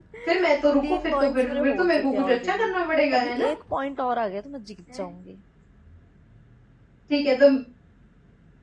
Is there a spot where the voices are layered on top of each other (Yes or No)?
Yes